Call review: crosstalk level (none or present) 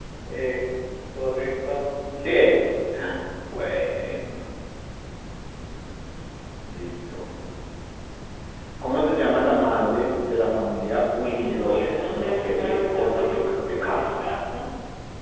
present